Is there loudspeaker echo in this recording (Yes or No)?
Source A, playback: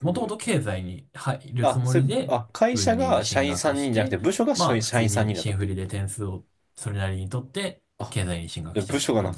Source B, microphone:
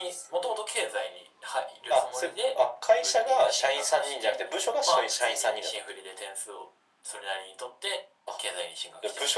Yes